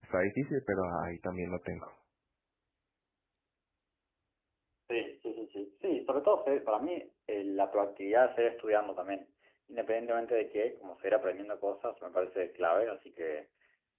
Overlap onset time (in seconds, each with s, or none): none